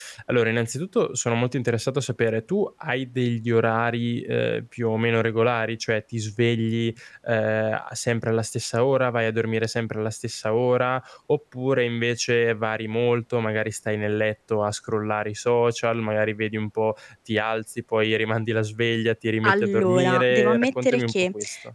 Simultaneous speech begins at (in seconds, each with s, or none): 19.4 s